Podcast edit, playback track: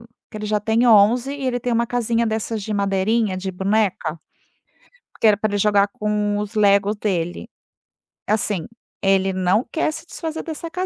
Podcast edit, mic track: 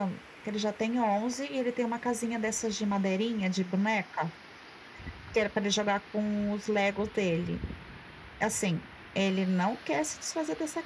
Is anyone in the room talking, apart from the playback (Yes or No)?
No